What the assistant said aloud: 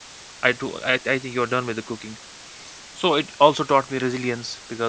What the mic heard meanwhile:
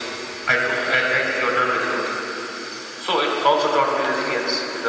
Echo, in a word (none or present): present